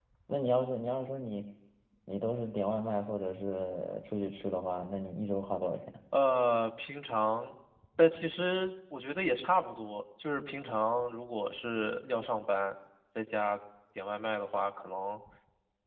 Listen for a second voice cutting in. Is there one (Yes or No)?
No